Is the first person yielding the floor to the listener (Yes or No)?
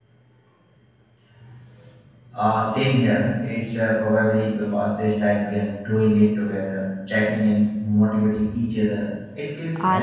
Yes